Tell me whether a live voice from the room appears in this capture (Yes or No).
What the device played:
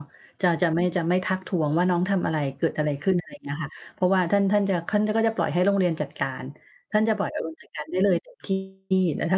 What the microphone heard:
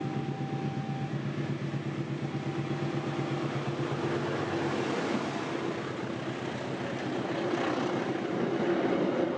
No